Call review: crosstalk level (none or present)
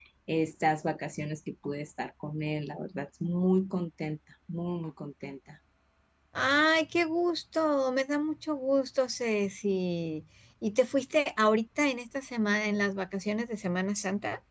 none